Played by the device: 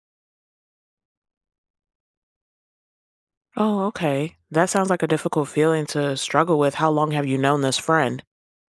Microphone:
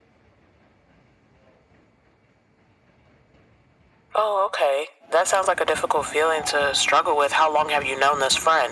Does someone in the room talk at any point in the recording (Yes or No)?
No